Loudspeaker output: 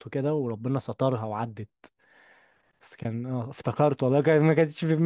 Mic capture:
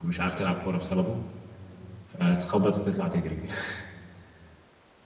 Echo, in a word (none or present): none